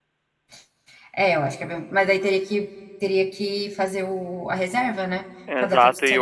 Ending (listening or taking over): taking over